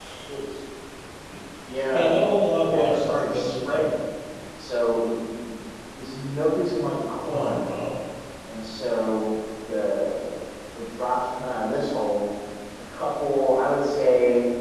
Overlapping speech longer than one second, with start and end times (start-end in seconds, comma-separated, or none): 2.6-3.9